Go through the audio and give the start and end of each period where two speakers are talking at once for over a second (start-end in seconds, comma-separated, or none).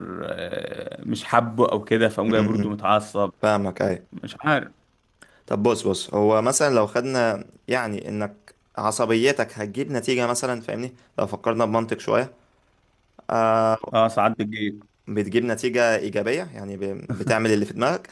none